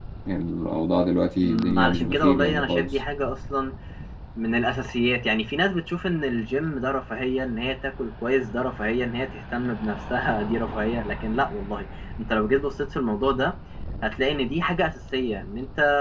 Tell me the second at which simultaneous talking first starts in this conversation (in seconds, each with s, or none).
1.4 s